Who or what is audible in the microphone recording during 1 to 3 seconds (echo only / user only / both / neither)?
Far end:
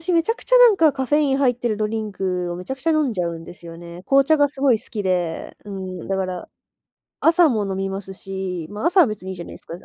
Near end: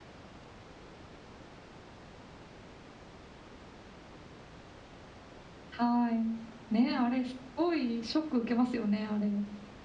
neither